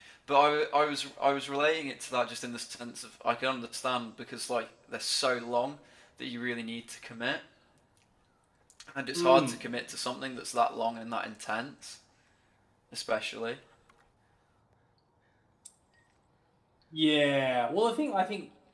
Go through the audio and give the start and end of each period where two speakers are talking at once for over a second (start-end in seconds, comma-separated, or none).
none